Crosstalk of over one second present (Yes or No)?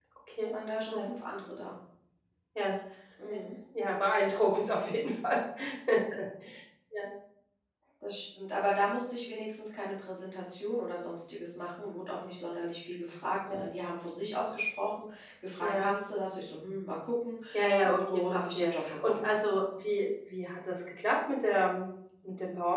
Yes